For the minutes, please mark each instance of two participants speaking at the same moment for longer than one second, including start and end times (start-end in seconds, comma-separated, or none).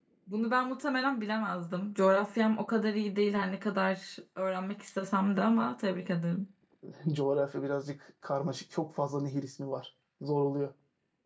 none